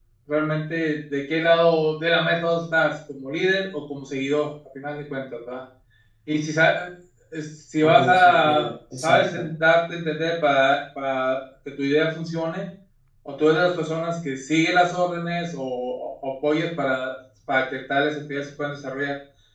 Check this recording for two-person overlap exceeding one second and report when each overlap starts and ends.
7.8-9.5

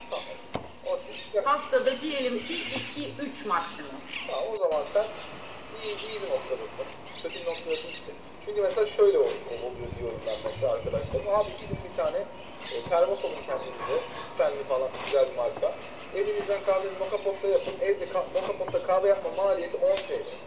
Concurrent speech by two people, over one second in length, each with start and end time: none

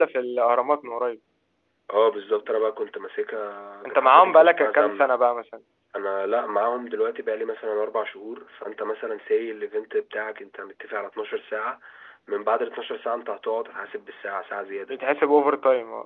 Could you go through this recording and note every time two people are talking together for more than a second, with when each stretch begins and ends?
3.8-5.1

